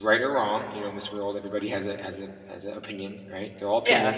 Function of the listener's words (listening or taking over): taking over